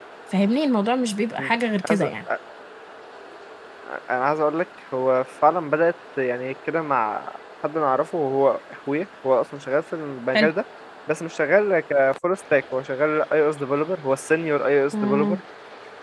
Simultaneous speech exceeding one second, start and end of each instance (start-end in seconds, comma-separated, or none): none